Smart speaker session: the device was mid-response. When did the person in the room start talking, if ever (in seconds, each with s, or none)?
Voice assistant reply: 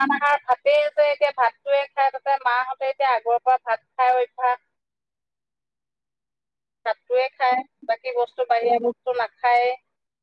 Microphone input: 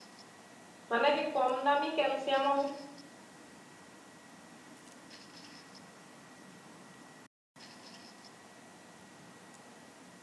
0.9 s